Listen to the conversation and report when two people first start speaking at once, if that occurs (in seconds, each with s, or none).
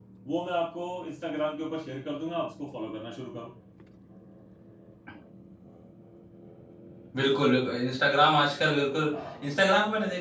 none